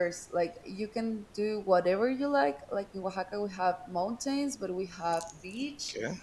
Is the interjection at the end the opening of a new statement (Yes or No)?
No